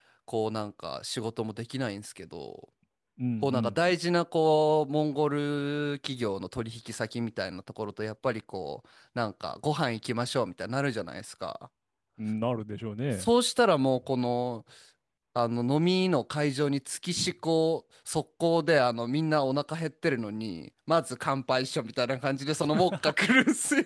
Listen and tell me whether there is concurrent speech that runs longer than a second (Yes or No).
No